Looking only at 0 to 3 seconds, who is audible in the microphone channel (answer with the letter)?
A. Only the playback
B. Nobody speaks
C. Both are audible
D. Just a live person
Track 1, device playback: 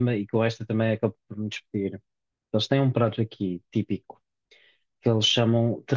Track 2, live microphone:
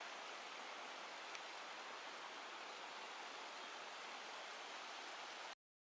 B